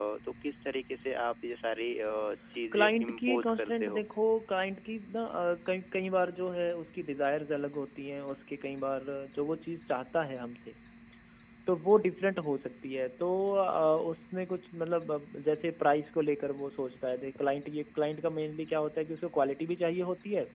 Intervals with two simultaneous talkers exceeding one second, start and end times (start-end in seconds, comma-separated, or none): 2.7-4.0